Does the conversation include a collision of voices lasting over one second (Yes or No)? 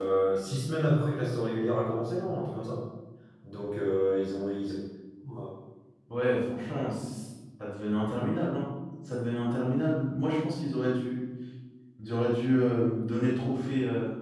No